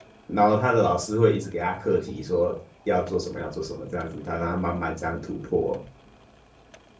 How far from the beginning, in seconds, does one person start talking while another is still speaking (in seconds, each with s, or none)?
none